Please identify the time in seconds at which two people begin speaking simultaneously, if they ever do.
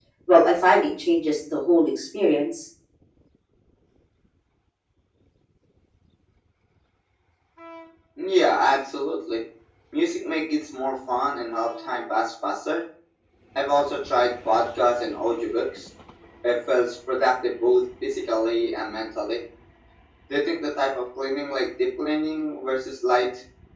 none

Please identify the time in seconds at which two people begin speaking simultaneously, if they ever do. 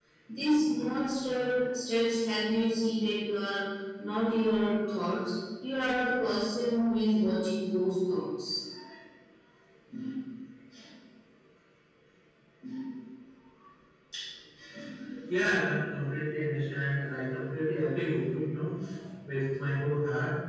none

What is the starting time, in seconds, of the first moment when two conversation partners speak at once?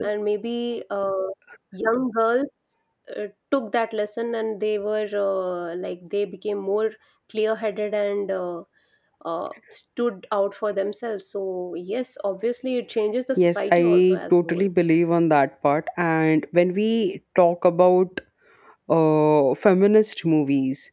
13.4 s

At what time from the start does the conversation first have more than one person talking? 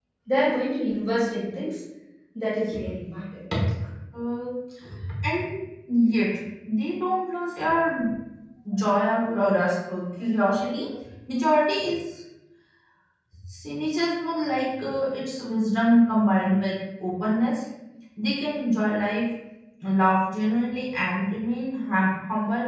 none

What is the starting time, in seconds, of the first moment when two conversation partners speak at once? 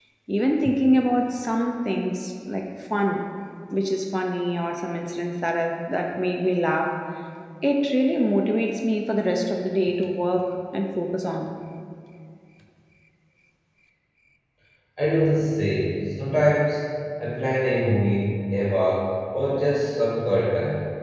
none

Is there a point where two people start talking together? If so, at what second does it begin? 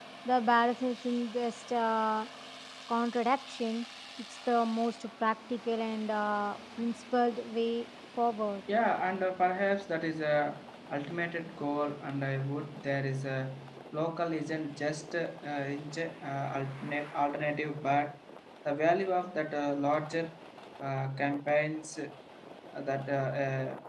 none

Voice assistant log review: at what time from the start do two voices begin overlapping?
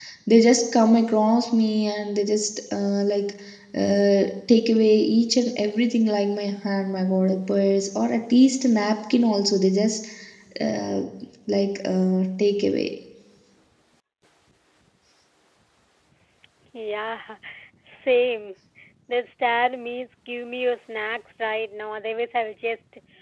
none

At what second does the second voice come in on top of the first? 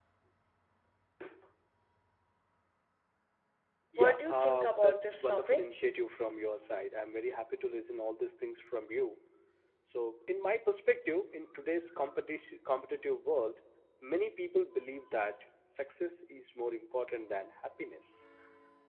4.0 s

